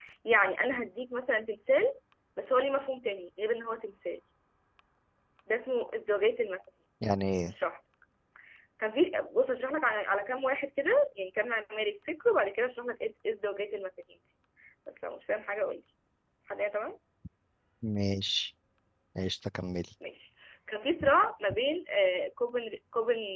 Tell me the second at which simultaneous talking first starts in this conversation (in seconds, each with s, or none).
none